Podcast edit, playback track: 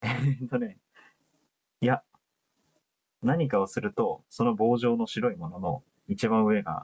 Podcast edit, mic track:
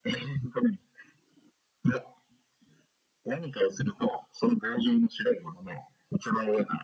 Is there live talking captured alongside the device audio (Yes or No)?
No